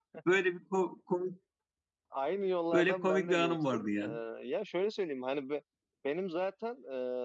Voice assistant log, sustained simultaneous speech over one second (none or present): present